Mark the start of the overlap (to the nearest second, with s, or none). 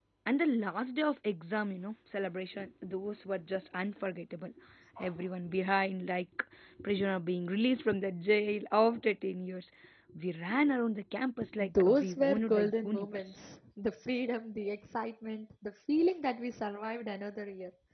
12 s